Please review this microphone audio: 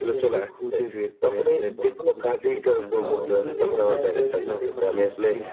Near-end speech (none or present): present